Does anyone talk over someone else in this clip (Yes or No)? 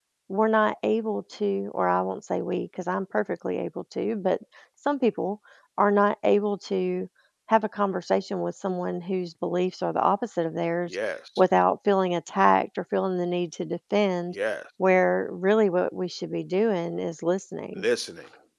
No